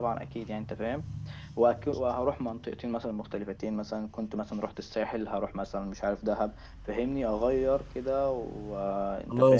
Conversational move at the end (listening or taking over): taking over